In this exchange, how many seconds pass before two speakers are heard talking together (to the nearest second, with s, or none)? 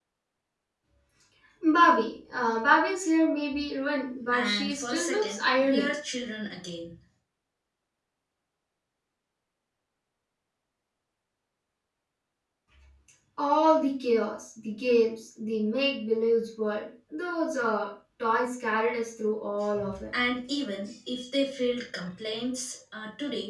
4 s